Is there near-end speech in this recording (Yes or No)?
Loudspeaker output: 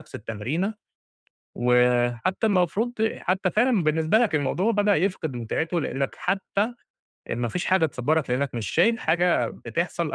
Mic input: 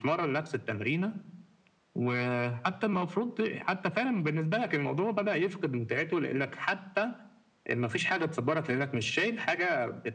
No